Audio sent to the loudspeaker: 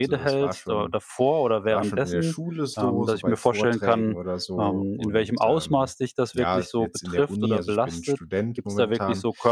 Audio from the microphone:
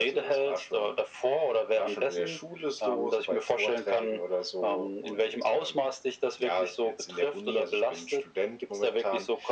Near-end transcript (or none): none